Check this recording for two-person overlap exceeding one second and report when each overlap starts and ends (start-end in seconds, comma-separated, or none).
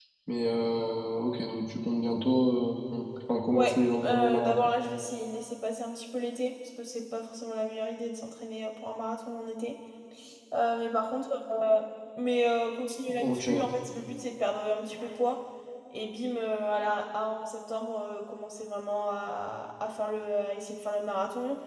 3.5-4.7